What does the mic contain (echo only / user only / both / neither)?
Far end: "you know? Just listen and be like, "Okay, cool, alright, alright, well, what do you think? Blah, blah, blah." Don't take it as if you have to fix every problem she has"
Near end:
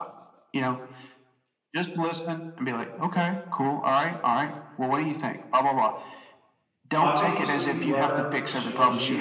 both